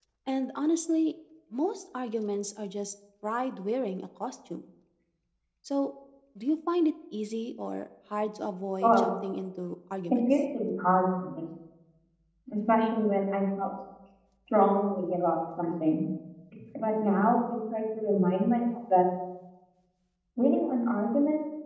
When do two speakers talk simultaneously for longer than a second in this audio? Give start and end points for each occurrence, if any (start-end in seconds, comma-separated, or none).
none